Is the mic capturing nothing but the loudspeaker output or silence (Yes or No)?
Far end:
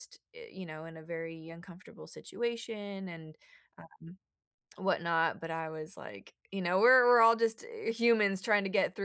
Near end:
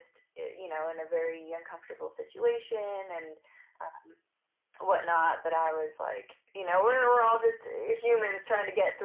Yes